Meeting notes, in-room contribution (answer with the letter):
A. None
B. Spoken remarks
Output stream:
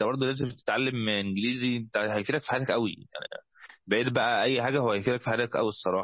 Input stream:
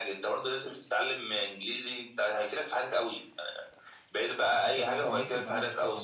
B